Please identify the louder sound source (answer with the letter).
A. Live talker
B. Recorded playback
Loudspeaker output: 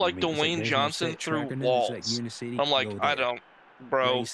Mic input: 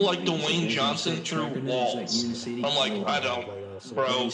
B